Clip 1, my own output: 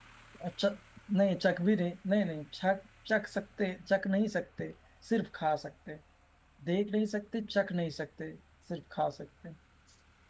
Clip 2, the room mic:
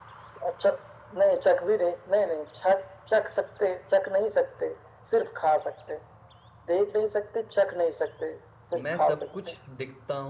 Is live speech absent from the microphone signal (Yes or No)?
No